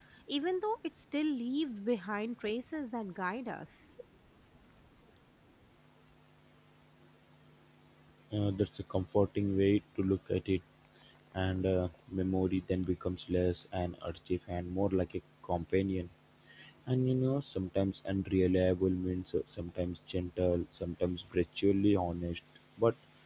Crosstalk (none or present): none